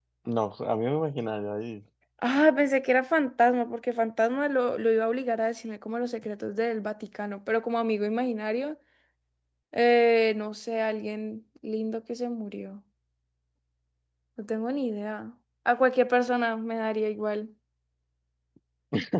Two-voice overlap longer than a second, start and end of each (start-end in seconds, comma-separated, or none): none